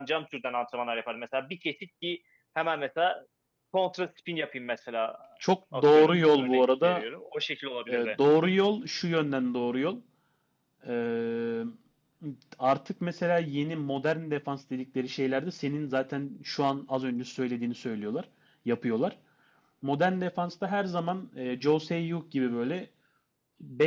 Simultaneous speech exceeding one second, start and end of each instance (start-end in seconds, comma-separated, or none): 5.7-7.0